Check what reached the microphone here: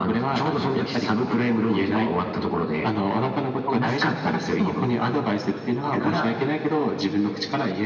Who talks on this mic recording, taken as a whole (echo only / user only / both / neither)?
echo only